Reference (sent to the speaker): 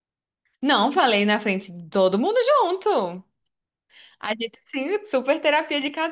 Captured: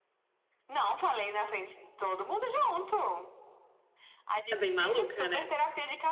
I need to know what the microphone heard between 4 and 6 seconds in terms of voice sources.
both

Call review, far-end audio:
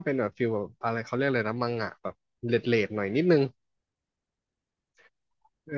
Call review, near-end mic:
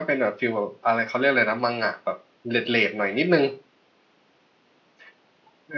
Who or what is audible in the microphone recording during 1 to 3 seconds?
echo only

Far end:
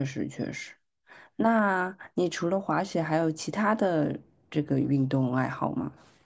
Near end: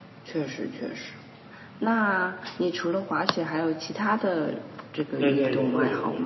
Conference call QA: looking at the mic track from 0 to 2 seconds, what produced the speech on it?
echo only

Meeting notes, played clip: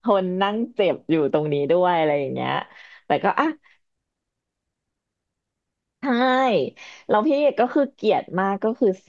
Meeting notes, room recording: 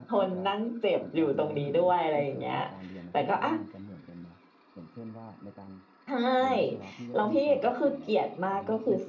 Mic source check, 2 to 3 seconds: both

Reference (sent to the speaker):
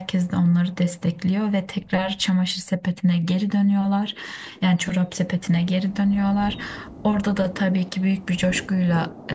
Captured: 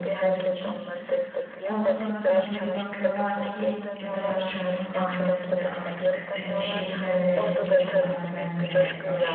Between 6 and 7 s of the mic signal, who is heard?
both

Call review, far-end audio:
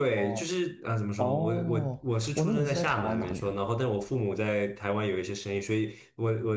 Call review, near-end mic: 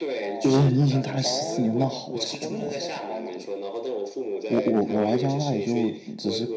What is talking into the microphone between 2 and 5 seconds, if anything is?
both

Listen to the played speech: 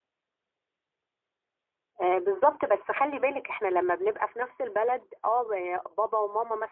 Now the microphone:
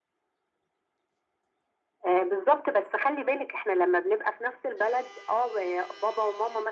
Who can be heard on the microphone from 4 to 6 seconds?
echo only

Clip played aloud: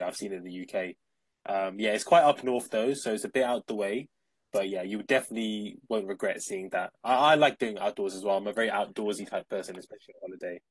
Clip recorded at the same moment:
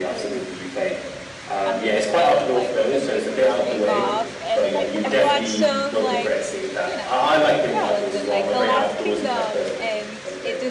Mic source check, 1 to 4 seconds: both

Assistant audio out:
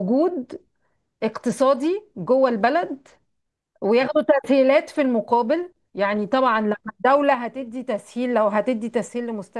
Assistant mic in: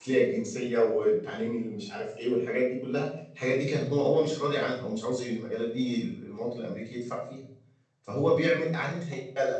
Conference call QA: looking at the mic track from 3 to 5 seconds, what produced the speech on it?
user only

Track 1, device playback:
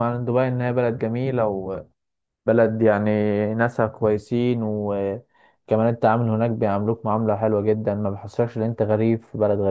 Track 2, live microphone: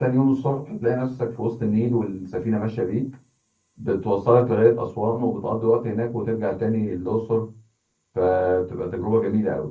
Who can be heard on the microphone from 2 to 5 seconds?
user only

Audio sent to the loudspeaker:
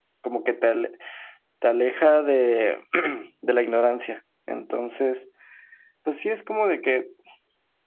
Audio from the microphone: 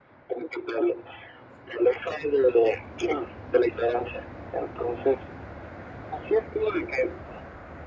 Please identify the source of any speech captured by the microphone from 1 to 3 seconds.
echo only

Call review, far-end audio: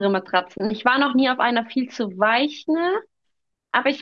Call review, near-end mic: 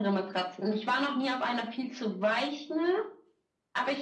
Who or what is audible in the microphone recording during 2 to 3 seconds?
echo only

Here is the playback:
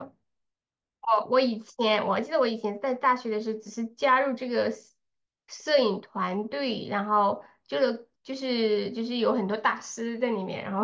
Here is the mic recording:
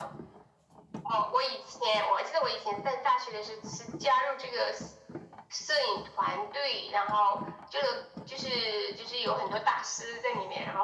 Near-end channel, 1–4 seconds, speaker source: echo only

